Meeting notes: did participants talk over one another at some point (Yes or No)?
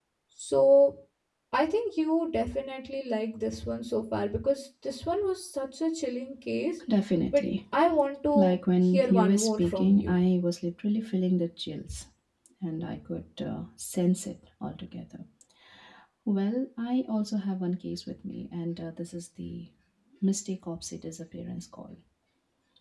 Yes